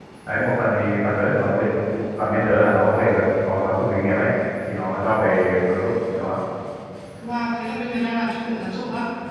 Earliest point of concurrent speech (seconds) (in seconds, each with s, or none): none